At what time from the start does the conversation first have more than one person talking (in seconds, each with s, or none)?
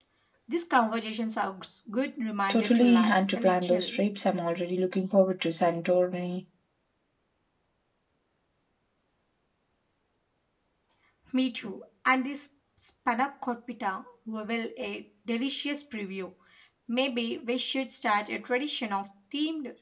2.5 s